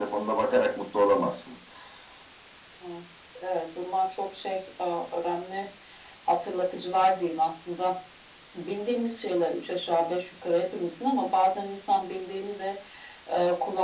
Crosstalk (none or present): none